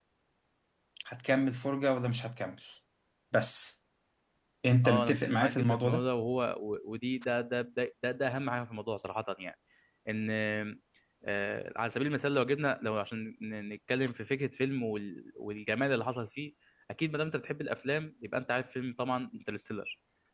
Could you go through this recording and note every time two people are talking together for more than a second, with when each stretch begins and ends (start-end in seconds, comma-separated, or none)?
4.8-6.1